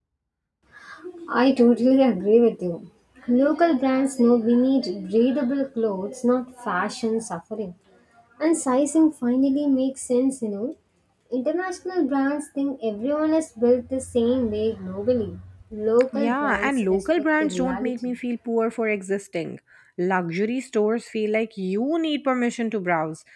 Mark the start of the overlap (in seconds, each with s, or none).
16.1 s